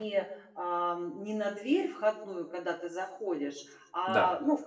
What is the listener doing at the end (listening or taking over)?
listening